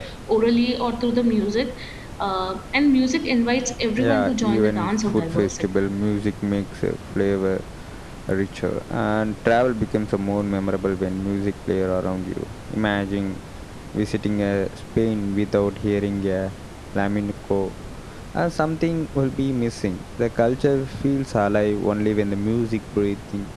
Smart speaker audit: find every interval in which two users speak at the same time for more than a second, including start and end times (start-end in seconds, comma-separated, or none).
4.0-5.6